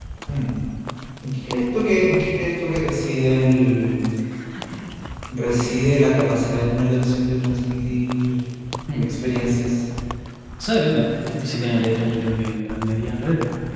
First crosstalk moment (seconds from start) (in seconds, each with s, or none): none